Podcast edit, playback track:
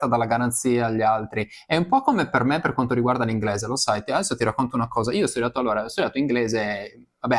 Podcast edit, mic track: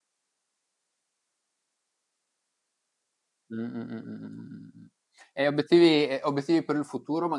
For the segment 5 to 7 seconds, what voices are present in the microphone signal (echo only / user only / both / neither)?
user only